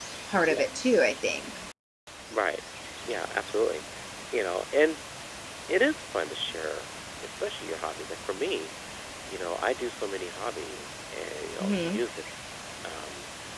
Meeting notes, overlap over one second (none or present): none